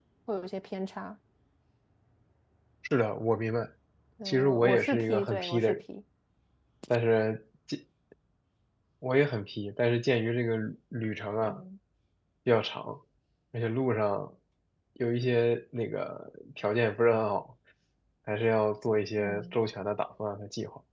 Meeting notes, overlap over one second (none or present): present